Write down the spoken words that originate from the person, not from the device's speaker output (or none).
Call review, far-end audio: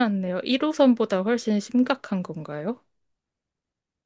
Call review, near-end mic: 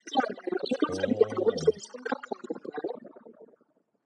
어,